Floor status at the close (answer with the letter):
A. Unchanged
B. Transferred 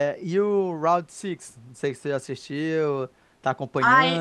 B